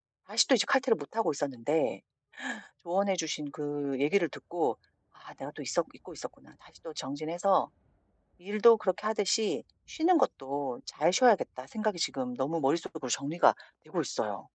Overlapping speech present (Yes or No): No